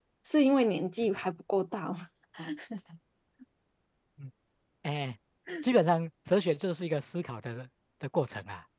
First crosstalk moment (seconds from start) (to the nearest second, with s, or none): none